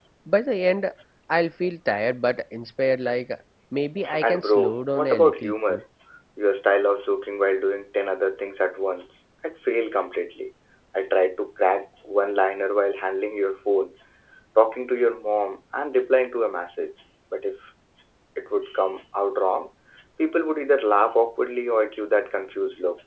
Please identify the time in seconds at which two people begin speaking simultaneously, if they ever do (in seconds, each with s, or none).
4.2 s